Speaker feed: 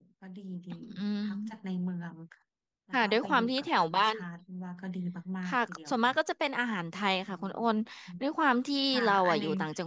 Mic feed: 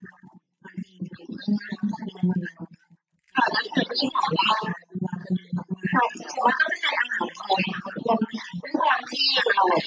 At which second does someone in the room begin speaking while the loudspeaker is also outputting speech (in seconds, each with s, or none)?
none